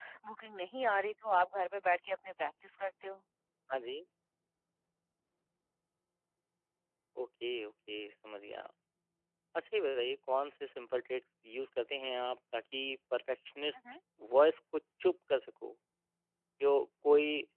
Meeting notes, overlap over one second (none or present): none